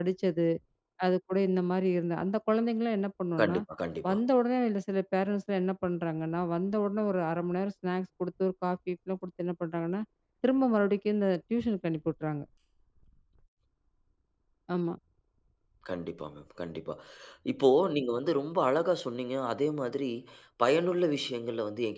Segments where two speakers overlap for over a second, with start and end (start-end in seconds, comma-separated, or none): none